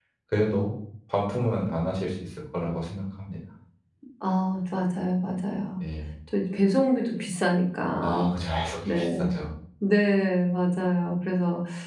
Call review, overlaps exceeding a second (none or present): none